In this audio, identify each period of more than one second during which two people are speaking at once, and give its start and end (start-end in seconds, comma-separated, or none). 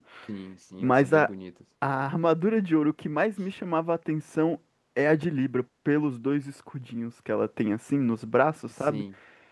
none